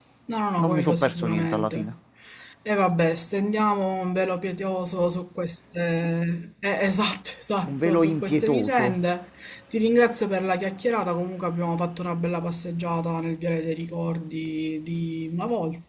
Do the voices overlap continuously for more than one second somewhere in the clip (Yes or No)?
Yes